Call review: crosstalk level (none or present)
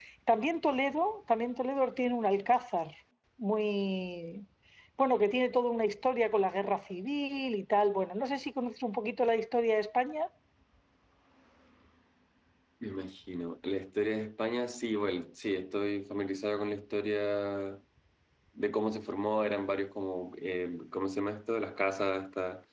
none